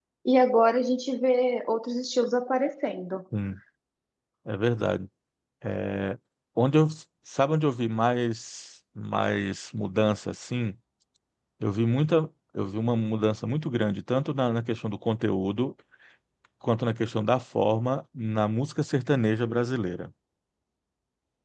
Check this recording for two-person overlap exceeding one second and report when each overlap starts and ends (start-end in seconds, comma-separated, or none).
none